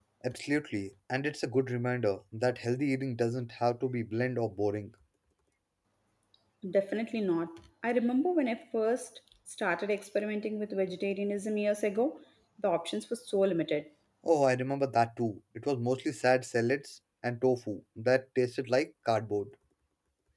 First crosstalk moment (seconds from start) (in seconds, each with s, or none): none